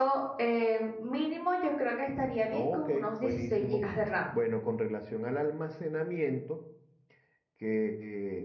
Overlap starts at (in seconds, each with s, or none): 2.5 s